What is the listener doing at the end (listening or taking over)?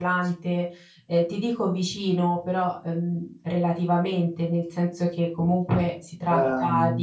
listening